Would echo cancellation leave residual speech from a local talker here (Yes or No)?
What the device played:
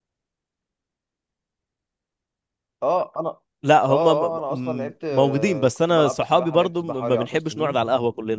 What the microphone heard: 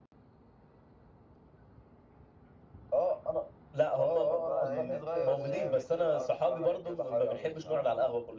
Yes